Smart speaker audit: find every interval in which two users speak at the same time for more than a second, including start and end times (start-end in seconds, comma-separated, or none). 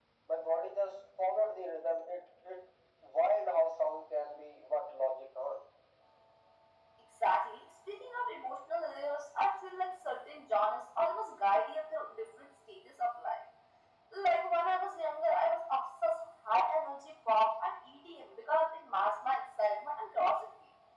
none